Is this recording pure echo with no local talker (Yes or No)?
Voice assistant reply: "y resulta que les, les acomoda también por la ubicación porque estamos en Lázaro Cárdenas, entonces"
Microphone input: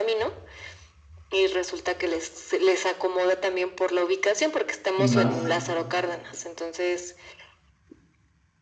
No